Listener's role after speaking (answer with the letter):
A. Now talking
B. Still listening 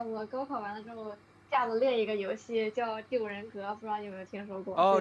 A